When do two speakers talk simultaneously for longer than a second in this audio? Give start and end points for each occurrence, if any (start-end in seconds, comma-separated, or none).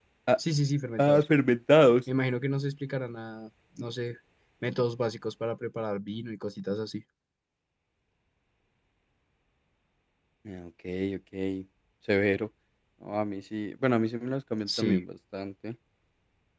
none